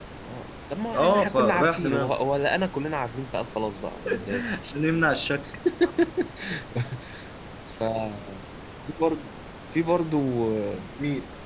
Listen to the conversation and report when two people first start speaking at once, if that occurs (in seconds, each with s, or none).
0.9 s